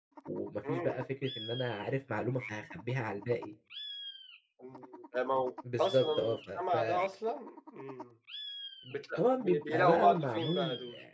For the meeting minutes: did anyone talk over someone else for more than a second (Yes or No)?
Yes